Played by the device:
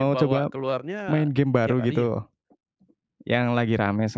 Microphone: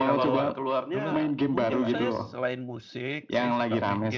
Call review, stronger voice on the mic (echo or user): echo